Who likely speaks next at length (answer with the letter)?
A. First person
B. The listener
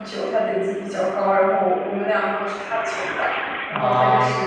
A